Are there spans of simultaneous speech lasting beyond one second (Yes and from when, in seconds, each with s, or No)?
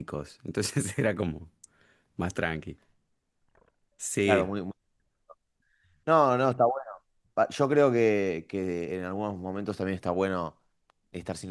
No